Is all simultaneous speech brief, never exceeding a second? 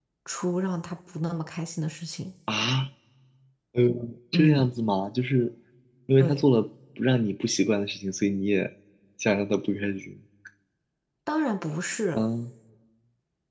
Yes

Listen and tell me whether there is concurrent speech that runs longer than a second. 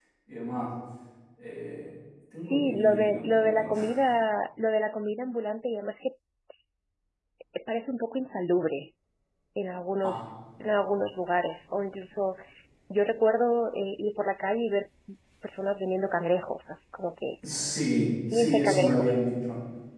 Yes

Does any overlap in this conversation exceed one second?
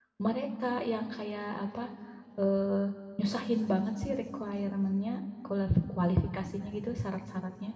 No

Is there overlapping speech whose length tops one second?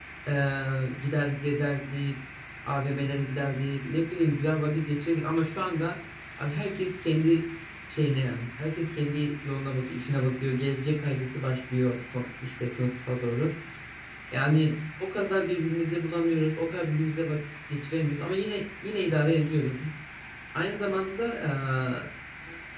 No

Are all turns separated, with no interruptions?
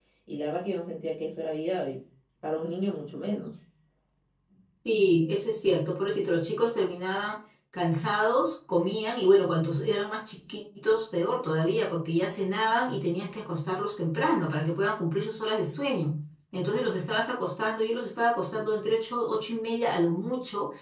Yes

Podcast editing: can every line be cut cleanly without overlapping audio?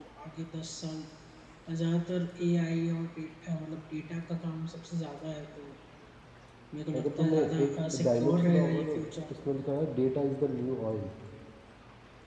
No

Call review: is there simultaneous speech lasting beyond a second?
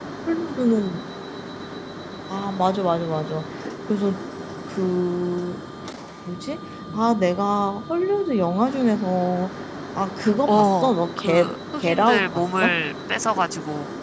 Yes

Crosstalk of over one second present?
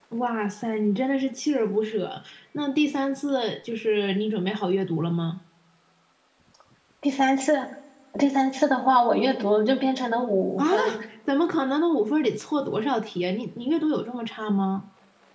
No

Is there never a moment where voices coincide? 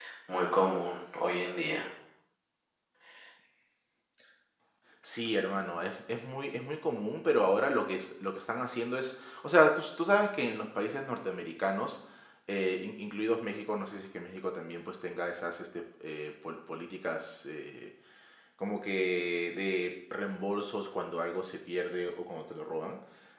Yes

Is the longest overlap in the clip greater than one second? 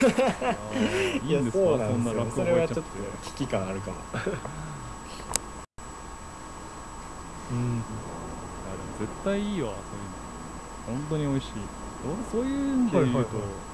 Yes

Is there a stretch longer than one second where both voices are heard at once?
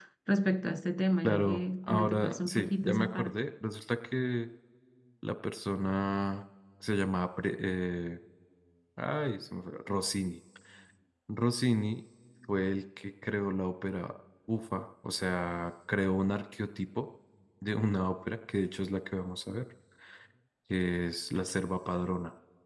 Yes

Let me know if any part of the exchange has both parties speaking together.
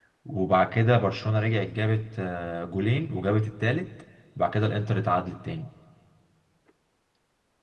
No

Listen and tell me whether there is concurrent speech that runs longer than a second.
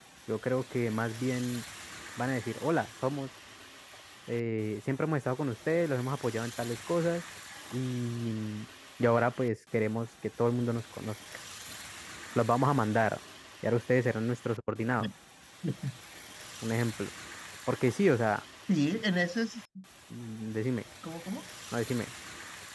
No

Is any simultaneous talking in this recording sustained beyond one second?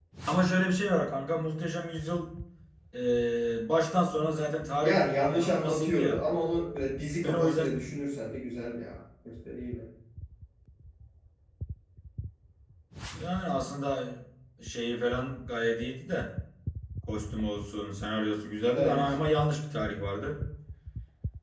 Yes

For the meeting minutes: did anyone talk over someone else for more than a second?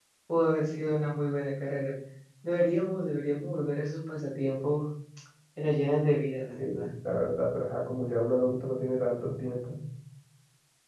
No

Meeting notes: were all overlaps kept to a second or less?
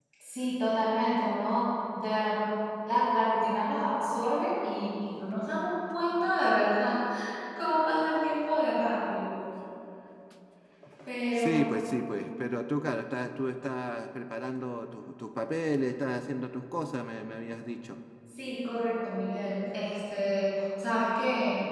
Yes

